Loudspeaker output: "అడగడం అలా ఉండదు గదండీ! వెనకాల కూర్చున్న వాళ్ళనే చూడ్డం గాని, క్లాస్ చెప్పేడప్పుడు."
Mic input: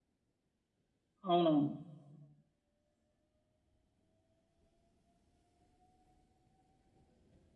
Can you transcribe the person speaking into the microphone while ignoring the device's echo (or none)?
అవునవును.